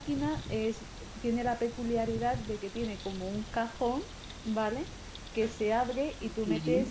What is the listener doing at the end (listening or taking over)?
listening